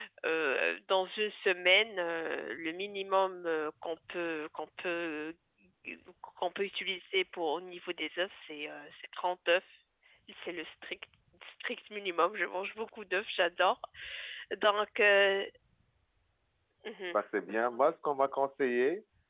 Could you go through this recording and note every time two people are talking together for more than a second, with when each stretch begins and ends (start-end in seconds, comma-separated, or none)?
none